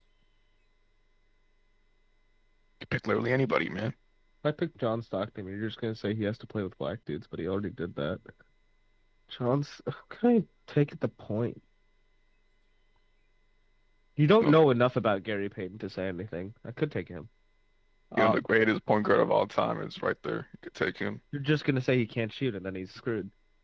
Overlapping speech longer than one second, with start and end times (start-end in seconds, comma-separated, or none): none